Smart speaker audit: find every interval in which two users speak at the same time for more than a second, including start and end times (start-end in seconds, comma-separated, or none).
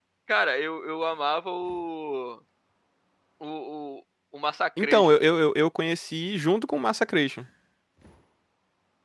none